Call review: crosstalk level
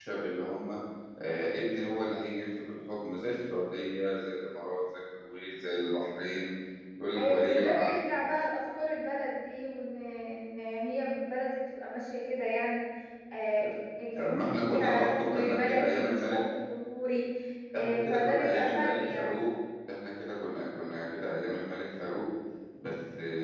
present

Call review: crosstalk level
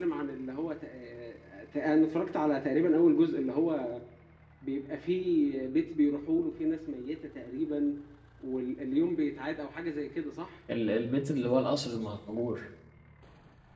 none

